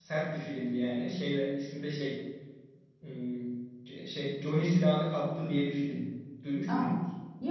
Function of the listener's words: taking over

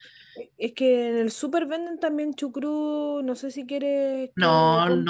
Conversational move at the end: taking over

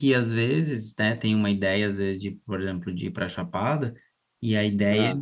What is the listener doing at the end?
listening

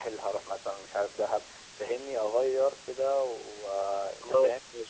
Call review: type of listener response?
taking over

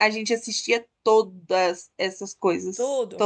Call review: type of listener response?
taking over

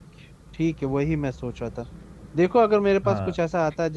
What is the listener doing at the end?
listening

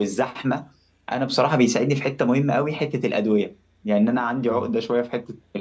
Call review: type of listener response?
listening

